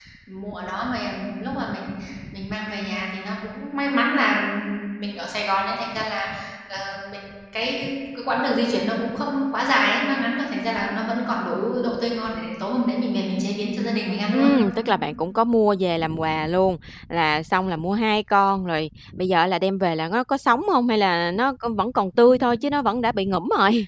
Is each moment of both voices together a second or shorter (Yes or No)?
Yes